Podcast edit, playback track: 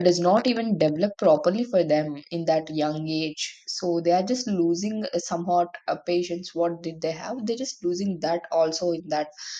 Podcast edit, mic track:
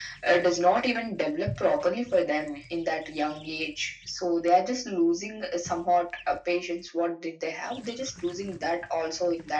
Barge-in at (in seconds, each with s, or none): none